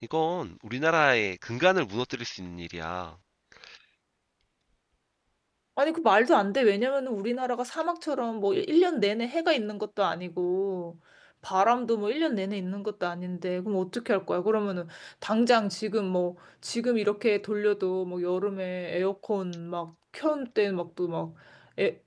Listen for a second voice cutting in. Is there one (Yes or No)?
No